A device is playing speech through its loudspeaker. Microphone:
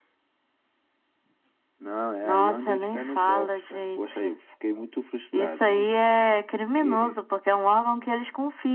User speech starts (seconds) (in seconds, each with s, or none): none